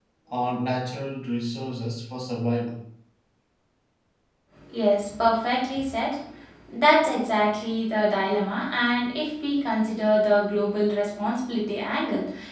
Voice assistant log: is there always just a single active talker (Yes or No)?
Yes